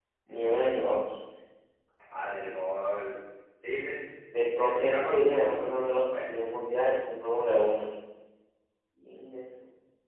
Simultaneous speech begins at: 4.6 s

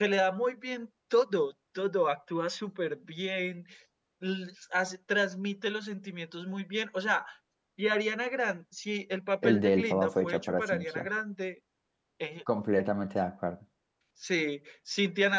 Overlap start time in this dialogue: 9.4 s

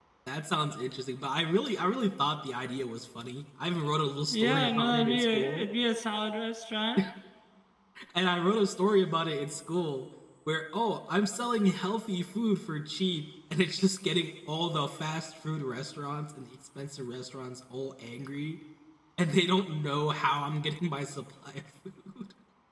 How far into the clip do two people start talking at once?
4.3 s

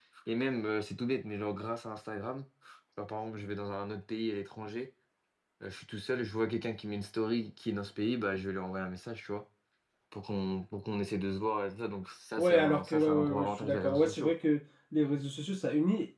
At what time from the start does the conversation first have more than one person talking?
12.4 s

